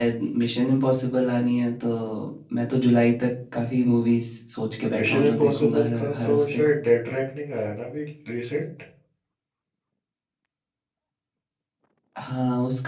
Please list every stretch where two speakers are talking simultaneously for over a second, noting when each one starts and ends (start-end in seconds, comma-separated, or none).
5.0-6.6